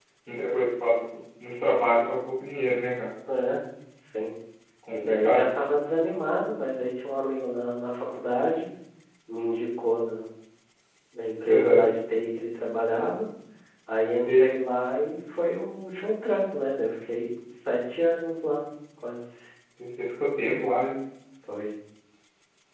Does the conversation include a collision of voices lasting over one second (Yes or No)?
No